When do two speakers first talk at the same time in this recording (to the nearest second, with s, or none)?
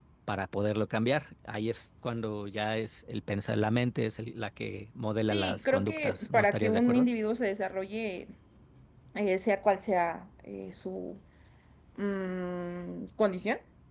5 s